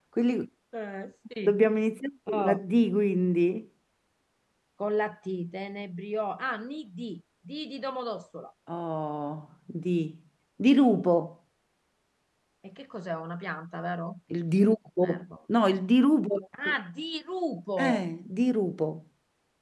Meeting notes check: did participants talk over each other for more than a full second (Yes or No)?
No